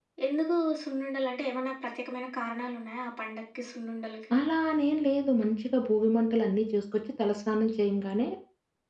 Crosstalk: none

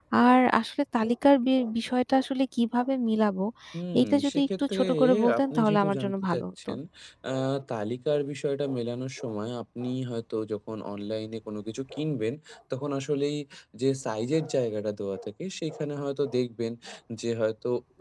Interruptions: present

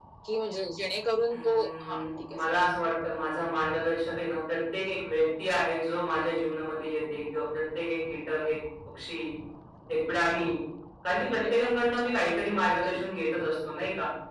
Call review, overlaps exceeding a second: present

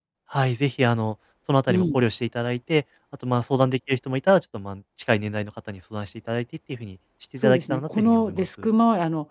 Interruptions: present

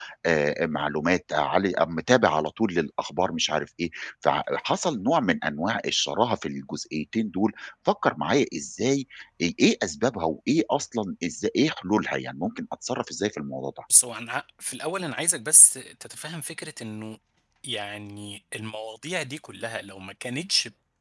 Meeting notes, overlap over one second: none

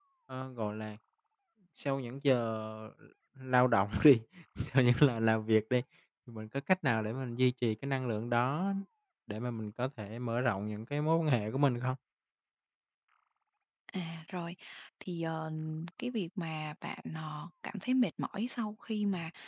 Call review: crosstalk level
none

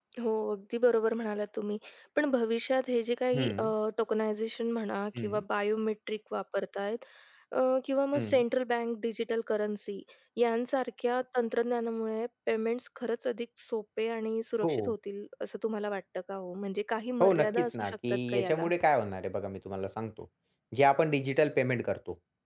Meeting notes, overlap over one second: present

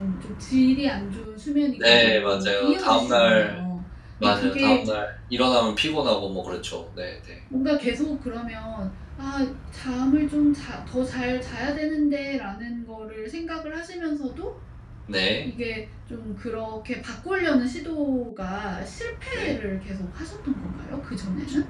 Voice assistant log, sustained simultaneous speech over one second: present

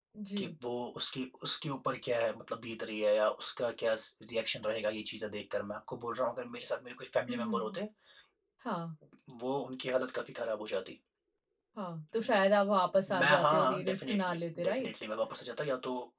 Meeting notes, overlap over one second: present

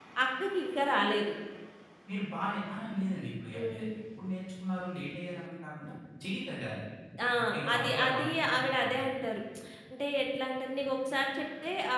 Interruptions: present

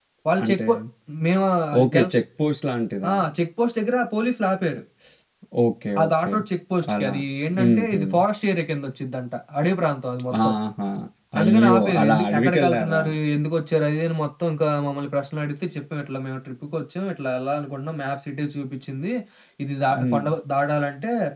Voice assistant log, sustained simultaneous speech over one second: present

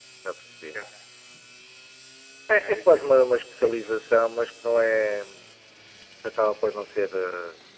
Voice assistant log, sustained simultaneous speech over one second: present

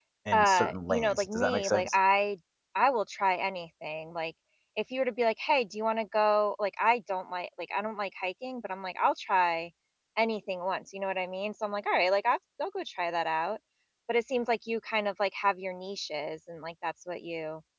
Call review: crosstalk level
present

